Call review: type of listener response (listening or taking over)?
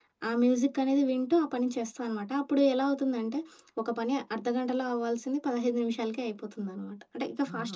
taking over